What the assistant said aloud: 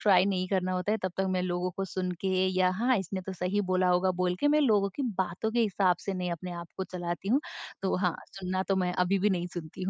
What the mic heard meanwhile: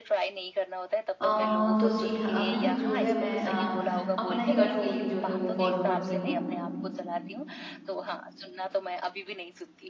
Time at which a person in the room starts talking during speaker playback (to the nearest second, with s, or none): 1 s